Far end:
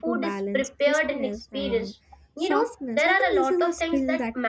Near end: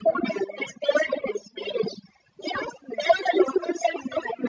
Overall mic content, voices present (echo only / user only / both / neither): echo only